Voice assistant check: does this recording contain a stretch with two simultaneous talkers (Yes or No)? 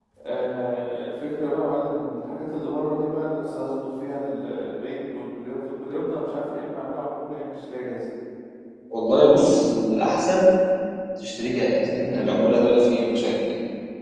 No